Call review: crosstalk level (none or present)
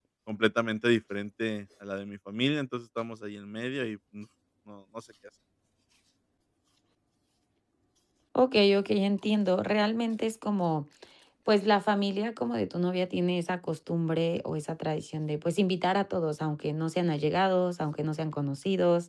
none